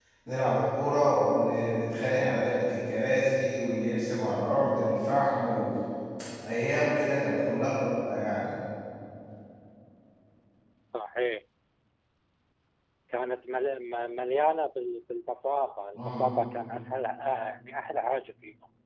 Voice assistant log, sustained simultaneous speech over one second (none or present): none